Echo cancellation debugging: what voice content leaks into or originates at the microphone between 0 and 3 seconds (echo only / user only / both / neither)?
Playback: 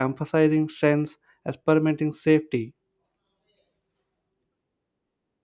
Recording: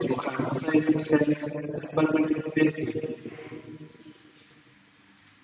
echo only